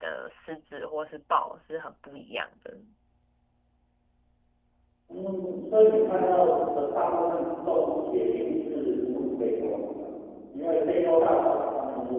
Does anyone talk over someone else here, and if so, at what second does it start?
none

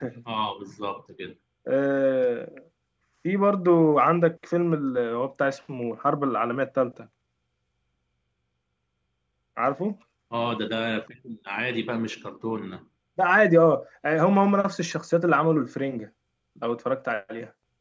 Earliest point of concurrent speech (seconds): none

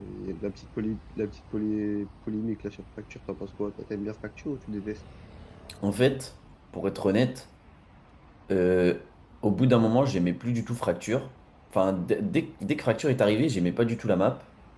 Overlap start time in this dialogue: none

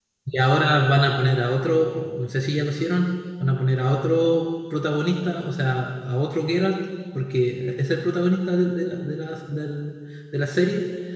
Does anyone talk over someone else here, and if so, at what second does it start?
none

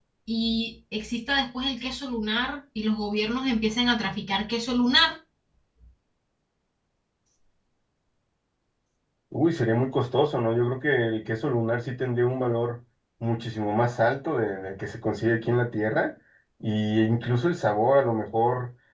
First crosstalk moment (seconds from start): none

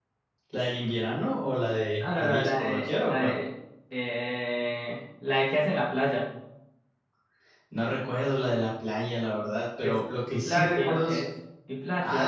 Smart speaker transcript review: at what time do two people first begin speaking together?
2.0 s

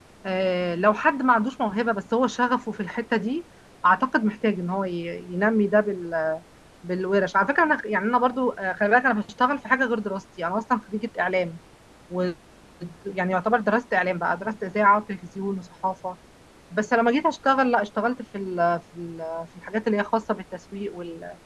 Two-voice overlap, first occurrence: none

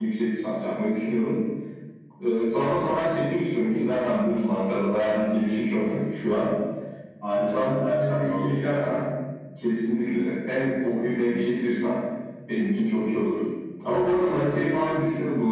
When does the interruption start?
7.4 s

